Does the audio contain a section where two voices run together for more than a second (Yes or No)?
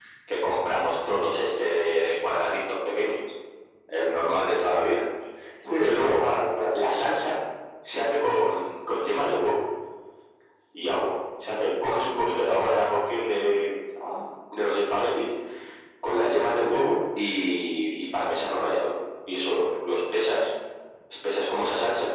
No